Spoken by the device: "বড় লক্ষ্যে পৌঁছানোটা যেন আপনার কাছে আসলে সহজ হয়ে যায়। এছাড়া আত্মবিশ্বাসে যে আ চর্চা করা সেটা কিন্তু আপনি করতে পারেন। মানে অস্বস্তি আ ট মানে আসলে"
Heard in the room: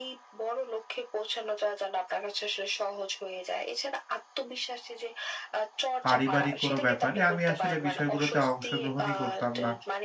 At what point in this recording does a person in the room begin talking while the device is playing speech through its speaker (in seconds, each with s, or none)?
6.1 s